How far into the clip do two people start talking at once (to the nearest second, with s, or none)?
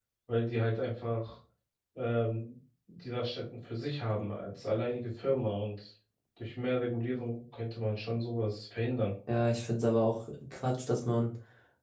none